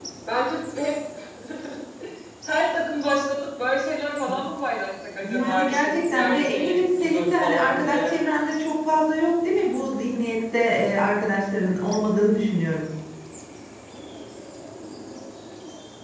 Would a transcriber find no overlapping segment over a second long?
No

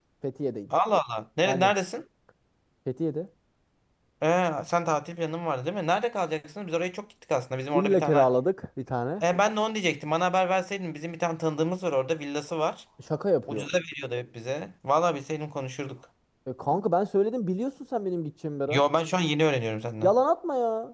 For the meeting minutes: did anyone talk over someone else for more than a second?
No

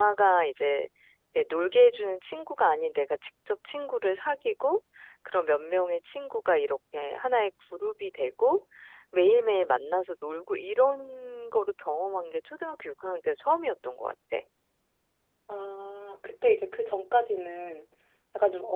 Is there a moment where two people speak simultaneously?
No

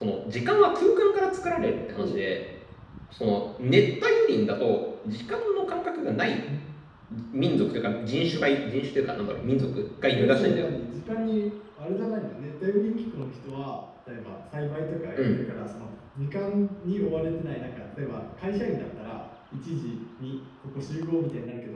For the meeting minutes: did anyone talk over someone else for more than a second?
No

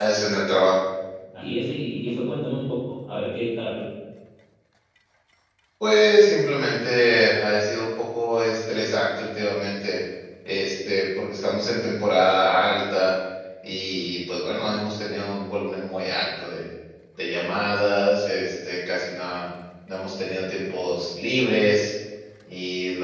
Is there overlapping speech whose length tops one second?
No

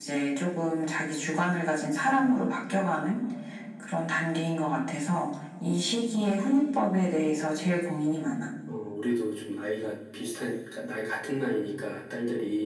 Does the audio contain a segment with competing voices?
No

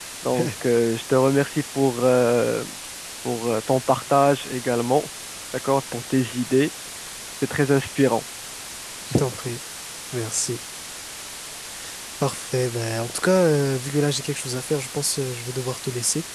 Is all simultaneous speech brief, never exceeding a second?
Yes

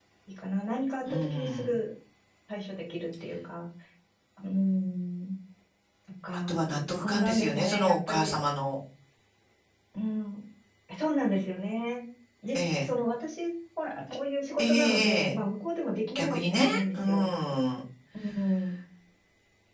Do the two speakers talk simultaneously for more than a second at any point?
Yes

